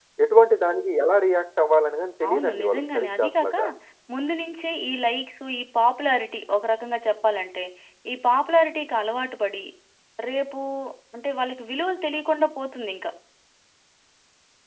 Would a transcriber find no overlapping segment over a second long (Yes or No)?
No